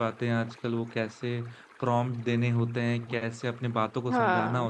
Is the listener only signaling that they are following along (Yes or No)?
Yes